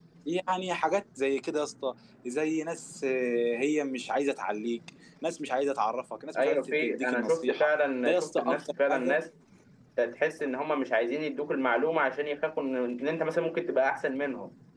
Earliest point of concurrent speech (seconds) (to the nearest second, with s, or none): 6 s